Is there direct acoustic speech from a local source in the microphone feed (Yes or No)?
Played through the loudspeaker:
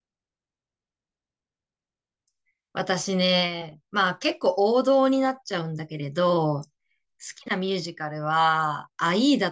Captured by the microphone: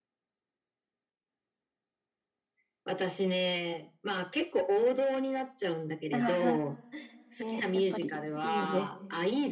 Yes